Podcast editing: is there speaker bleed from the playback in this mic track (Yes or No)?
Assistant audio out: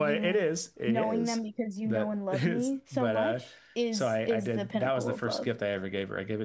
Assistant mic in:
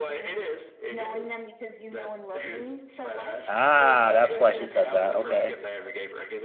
Yes